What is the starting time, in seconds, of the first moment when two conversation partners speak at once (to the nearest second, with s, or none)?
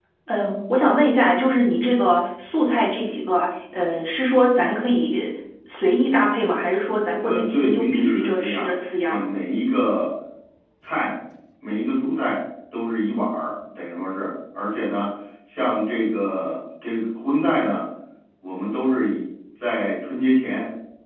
7 s